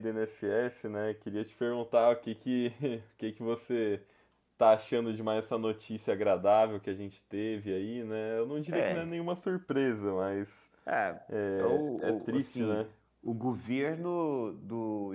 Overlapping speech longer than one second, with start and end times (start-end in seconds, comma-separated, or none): 11.6-12.9